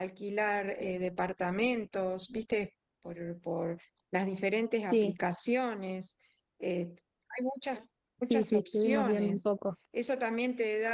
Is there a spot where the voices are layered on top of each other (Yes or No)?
Yes